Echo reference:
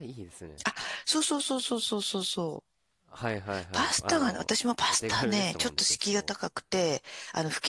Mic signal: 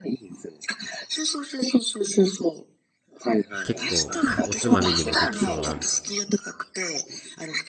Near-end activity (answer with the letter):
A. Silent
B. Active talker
B